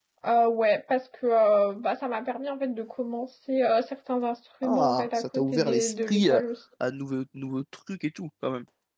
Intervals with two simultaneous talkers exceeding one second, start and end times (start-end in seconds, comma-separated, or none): 4.6-6.4